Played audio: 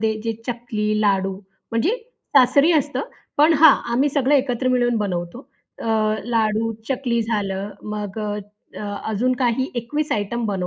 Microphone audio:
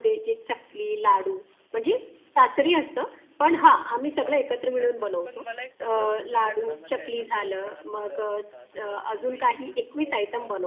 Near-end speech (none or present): present